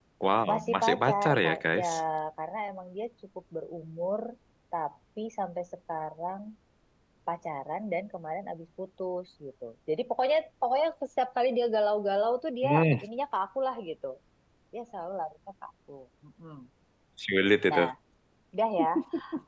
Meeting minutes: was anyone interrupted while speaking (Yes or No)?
Yes